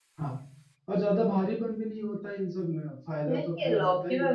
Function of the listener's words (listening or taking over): taking over